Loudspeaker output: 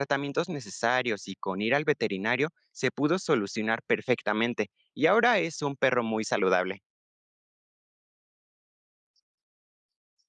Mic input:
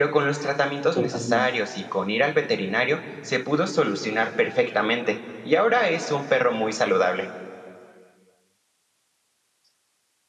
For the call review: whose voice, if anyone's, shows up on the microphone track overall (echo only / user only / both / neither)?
both